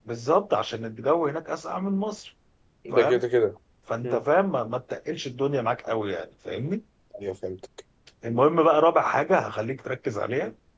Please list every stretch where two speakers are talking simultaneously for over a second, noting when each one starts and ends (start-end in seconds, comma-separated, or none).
none